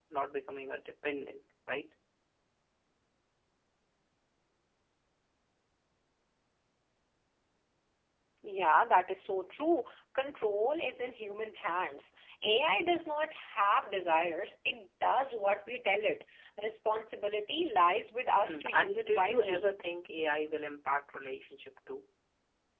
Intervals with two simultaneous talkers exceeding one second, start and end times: 18.4-19.7

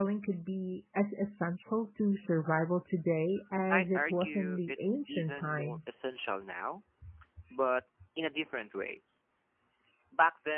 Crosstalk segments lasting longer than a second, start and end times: 3.7-5.9

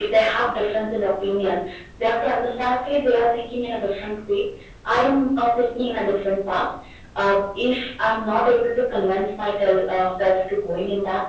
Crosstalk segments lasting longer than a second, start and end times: none

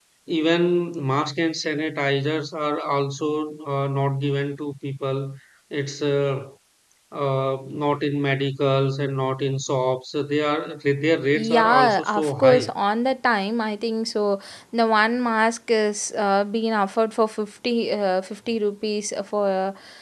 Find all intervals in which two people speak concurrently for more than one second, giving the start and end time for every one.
11.3-12.7

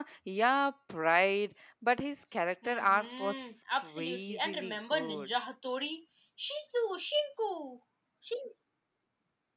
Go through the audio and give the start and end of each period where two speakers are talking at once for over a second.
2.6-5.4

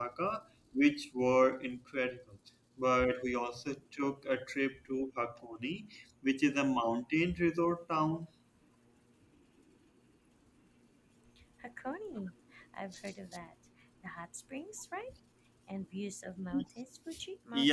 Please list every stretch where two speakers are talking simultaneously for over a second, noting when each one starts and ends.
none

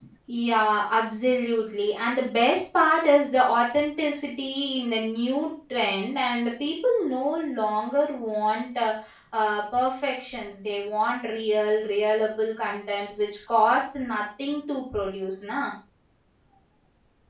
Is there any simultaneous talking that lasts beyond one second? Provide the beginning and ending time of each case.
none

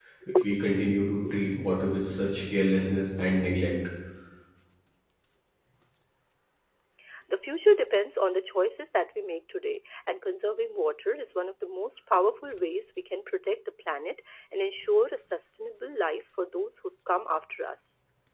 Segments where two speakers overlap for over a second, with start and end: none

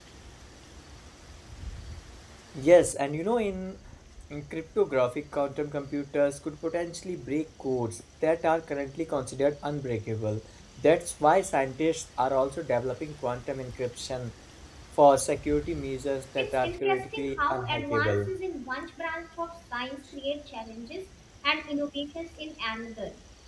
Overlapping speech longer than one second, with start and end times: 16.4-18.4

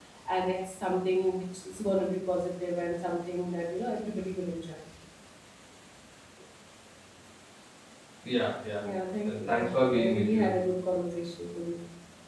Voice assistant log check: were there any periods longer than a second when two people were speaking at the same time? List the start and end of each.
9.2-10.5

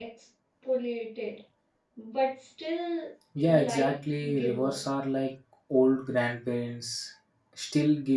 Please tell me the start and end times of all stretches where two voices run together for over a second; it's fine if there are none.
3.4-4.8

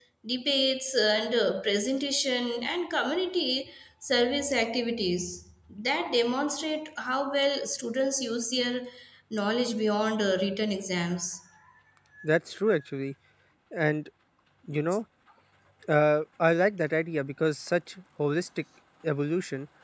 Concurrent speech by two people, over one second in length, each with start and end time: none

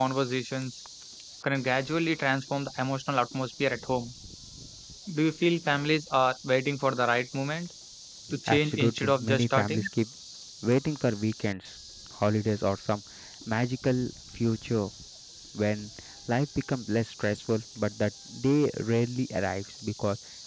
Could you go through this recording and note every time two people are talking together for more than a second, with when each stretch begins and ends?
8.5-9.9

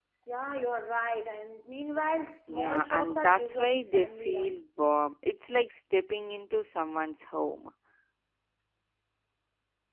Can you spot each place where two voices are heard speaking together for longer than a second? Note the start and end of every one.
2.5-4.6

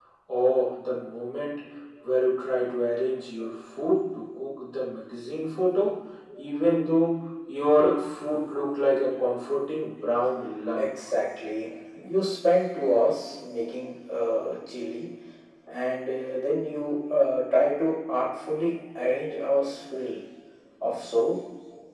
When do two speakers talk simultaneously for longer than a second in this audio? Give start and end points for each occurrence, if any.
none

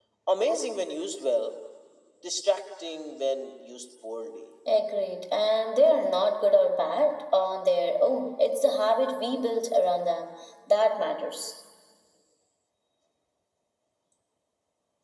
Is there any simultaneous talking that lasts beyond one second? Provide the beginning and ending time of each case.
none

